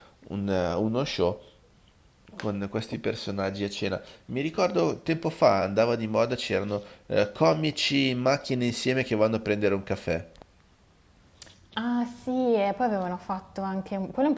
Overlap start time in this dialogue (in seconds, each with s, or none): none